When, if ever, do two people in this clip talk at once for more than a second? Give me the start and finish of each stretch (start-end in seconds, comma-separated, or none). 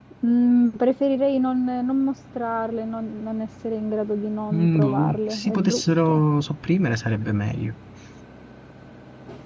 4.5-6.2